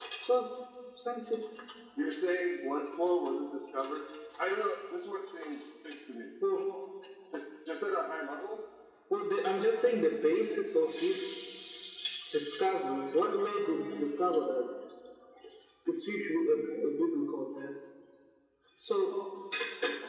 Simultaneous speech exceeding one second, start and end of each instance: none

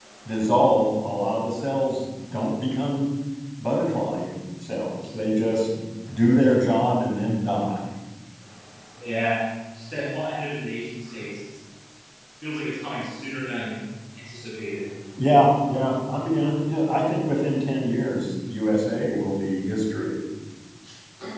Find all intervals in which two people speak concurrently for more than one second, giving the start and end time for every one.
none

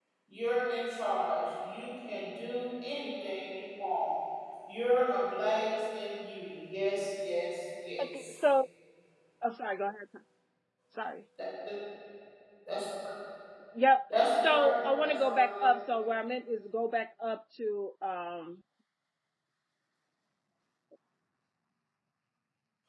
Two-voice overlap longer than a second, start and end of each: 14.3-15.7

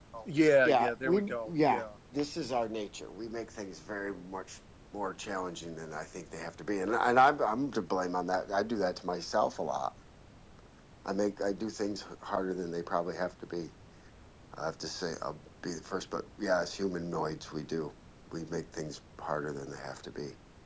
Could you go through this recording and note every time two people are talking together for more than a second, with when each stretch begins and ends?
0.6-1.8

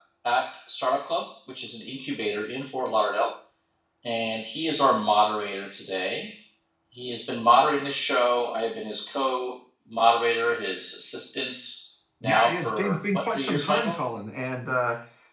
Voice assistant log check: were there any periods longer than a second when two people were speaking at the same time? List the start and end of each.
12.2-14.0

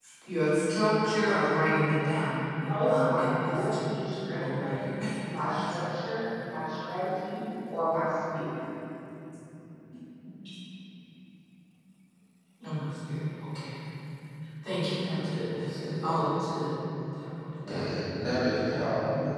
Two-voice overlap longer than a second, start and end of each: 2.7-3.9

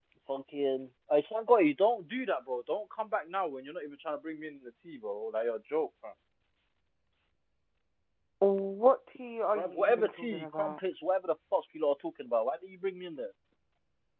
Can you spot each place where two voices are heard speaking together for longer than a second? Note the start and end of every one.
9.6-10.8

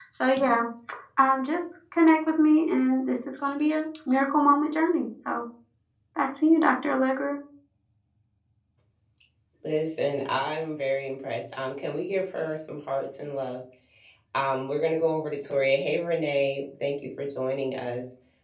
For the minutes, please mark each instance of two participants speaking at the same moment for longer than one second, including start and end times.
none

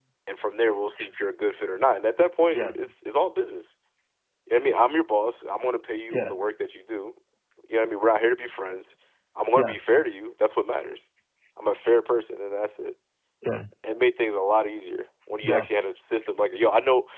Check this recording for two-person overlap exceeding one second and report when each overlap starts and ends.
none

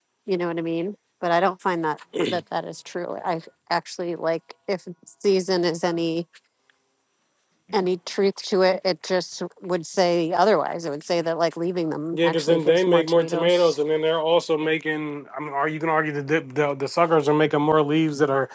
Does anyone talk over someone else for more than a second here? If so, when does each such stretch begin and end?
12.1-13.8

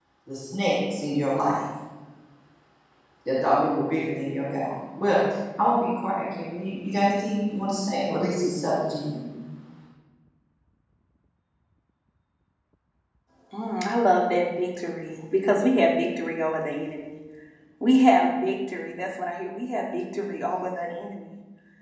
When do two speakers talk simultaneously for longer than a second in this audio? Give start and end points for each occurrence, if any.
none

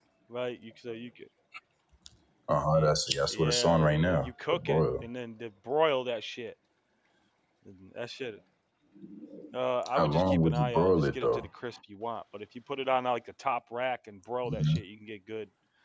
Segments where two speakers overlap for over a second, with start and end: 3.3-4.8, 9.9-11.5

